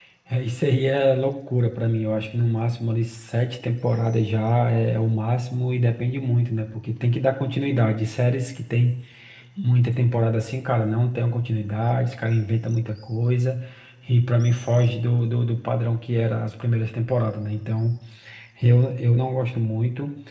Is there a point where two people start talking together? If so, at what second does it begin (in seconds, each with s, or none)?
none